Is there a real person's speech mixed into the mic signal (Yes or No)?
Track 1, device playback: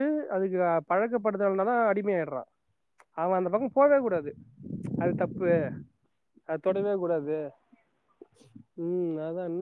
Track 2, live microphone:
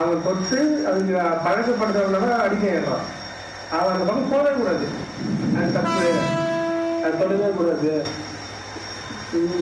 No